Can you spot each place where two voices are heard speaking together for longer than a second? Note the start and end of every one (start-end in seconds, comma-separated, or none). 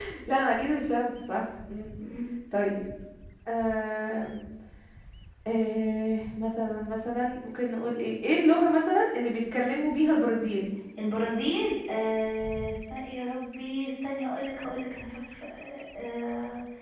none